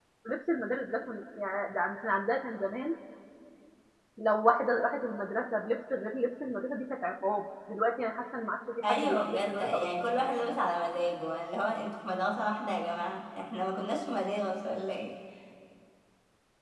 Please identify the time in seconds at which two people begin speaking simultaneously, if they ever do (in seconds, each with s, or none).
8.8 s